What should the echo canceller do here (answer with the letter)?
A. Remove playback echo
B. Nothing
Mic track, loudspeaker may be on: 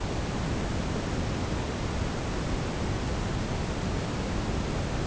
B